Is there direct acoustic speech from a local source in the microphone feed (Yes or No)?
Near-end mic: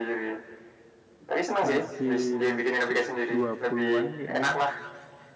Yes